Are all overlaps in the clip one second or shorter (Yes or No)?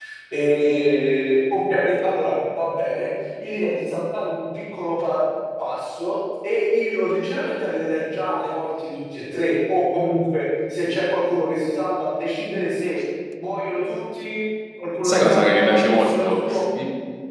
No